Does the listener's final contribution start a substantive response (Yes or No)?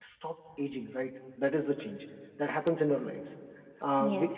No